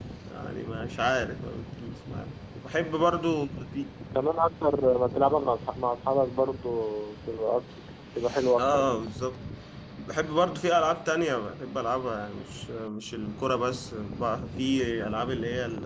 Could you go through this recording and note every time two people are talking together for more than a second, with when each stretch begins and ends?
none

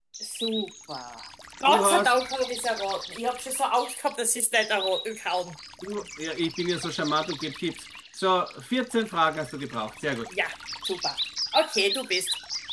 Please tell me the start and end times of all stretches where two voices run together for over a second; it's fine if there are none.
none

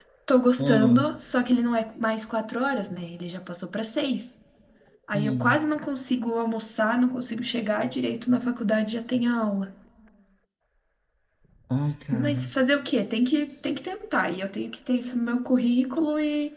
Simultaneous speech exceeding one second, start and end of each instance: none

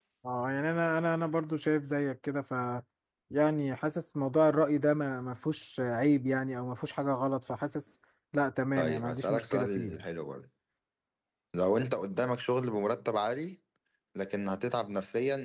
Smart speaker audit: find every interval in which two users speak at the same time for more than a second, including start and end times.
8.8-10.0

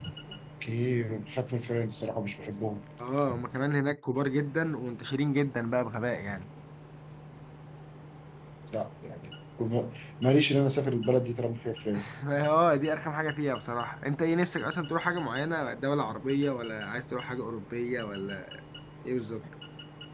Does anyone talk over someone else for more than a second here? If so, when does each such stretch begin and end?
none

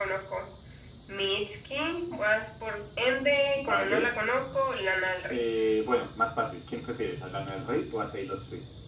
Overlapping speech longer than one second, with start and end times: none

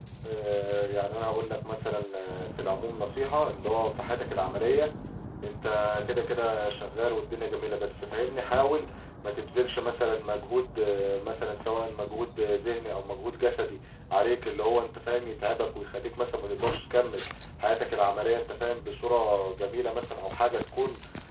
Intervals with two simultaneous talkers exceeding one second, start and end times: none

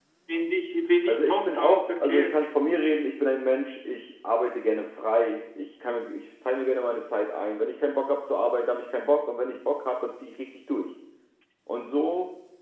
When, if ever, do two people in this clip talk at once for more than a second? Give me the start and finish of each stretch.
1.1-2.5

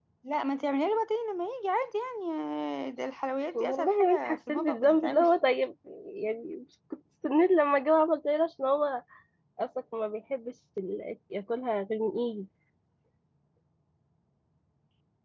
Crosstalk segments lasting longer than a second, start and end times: 3.5-5.3

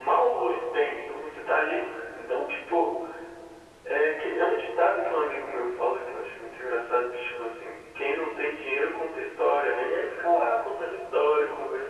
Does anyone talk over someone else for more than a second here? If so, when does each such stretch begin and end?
none

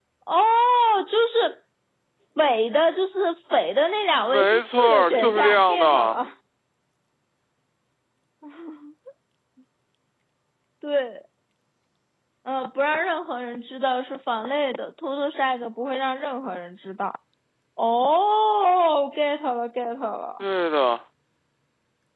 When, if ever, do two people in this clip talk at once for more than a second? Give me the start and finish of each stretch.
4.3-6.2

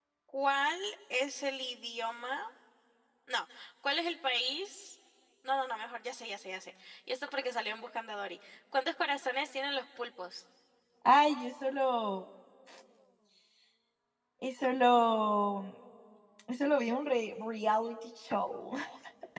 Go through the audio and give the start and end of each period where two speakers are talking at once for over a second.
none

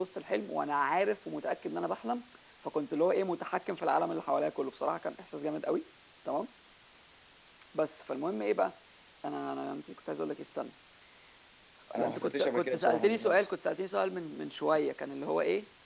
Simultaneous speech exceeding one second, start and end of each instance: 12.0-13.5

